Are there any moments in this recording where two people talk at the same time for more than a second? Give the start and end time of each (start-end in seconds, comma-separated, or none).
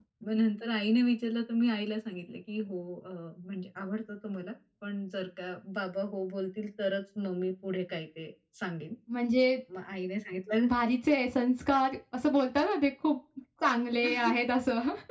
none